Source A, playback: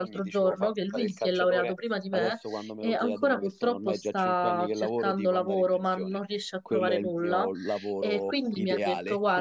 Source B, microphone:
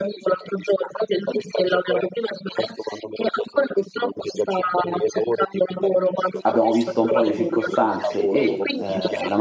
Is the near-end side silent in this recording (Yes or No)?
No